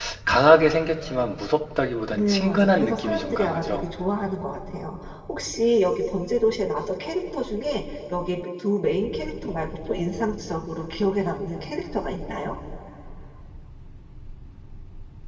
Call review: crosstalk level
present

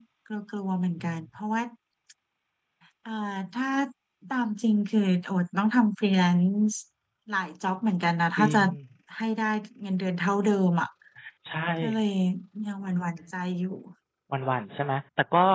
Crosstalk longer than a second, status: none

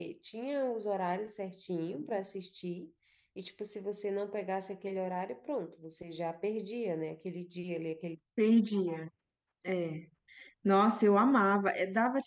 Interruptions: none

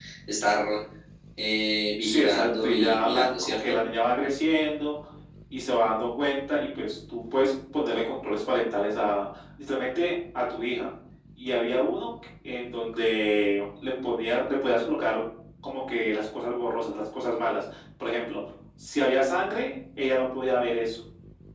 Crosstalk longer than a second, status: present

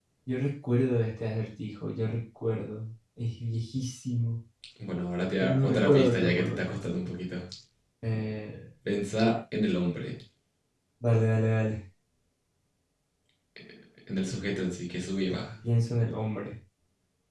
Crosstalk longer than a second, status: present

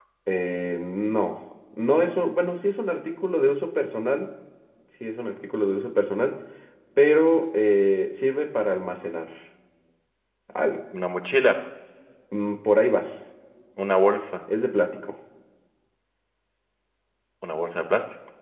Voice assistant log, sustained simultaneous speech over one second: none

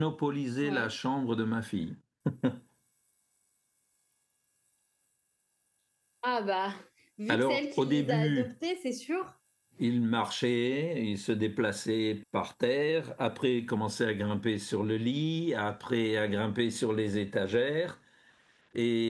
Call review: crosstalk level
present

